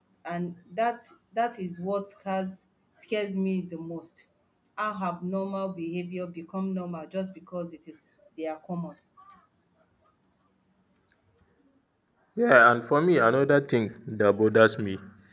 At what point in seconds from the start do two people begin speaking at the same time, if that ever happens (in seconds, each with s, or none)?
none